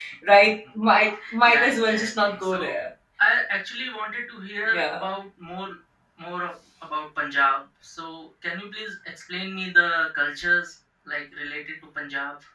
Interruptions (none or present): present